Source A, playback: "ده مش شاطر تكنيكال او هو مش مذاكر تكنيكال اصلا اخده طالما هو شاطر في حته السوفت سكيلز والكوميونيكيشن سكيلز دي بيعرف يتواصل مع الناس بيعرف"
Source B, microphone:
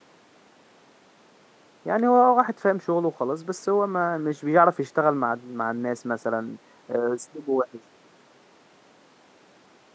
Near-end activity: present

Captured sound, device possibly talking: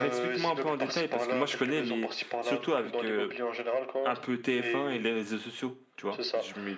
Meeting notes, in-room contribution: present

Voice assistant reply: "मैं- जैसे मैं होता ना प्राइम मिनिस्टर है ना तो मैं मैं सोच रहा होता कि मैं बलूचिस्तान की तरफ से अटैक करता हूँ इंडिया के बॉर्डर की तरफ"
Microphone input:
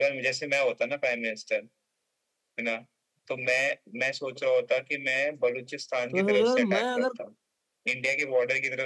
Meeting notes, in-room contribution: present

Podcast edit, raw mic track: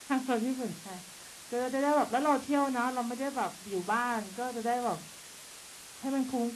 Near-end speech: present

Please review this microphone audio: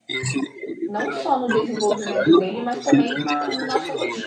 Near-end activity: present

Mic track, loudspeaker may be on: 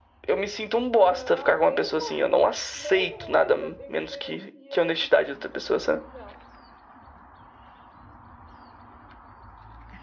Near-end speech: present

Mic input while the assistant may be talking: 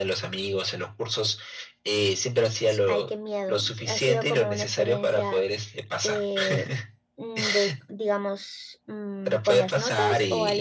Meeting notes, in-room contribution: present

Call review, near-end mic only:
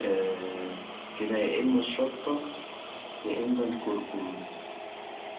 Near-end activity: none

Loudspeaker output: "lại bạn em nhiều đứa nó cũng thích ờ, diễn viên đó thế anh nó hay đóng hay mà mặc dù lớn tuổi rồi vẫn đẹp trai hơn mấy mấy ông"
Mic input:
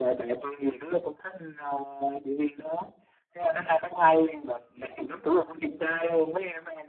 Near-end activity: none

